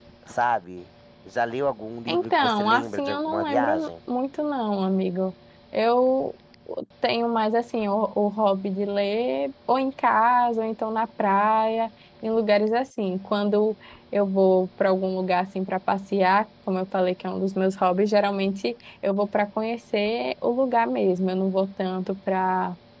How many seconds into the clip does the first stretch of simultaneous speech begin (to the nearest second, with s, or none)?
2 s